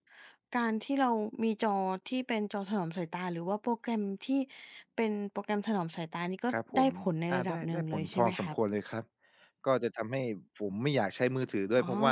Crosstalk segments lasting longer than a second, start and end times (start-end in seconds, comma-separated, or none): 7.3-8.6